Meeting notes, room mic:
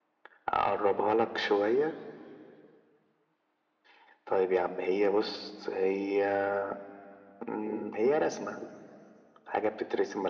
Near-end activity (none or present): none